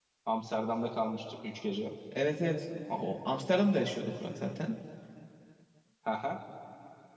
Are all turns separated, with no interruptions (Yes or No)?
Yes